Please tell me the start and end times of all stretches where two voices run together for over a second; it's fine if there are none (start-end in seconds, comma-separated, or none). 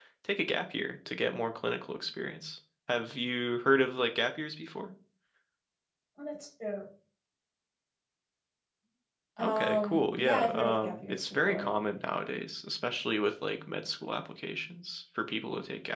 9.4-11.7